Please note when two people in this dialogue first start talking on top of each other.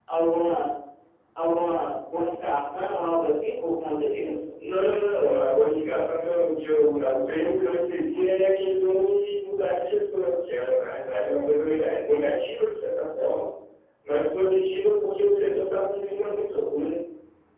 none

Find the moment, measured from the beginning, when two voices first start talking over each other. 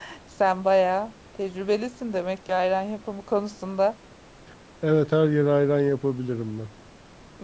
none

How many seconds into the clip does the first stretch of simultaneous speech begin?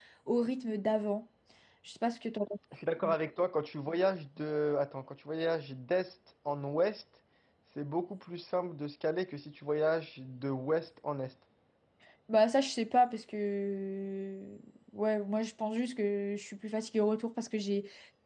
none

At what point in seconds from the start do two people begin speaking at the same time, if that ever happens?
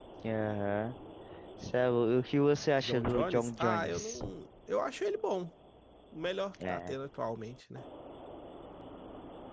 2.8 s

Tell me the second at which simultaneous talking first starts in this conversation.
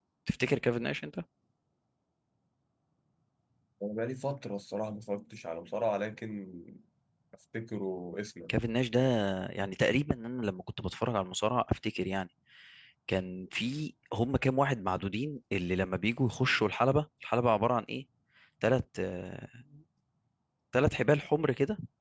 none

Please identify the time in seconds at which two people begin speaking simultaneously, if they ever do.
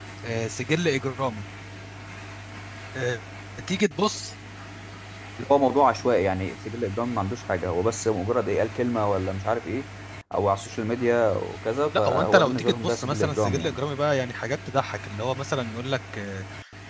11.9 s

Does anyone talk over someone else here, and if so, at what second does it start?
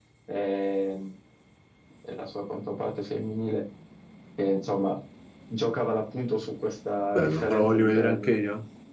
7.1 s

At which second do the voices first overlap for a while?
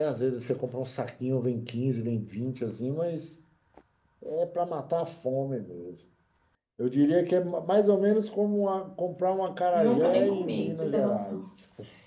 9.7 s

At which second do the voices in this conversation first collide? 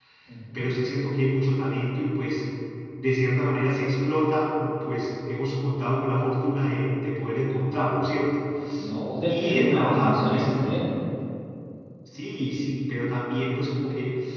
9.3 s

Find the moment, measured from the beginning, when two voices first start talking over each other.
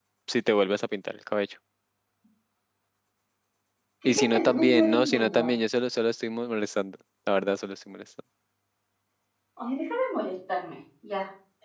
4.2 s

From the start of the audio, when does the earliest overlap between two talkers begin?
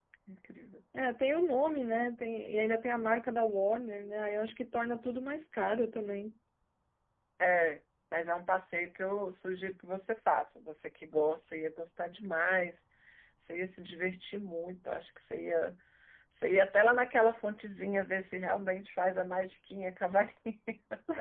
none

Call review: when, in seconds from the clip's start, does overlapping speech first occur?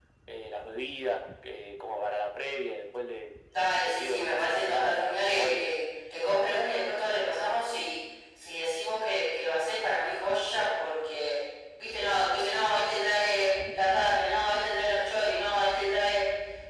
3.8 s

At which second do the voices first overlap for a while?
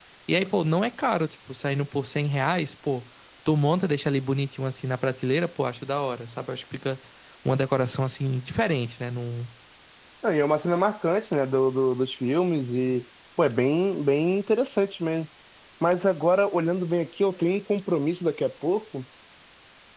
none

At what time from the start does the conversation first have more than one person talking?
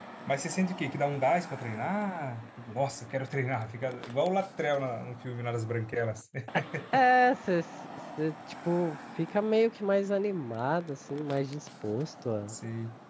none

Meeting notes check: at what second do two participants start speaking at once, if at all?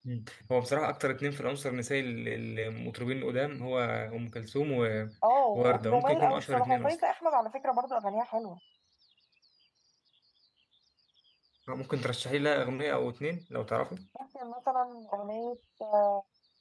5.5 s

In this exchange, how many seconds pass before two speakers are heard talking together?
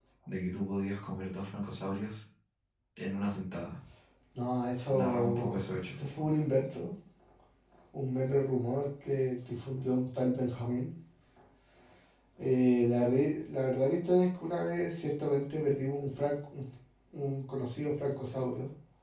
4.9 s

